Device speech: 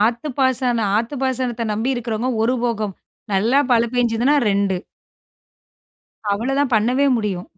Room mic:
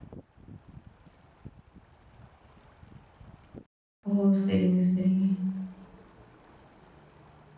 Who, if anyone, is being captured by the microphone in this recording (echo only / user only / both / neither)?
user only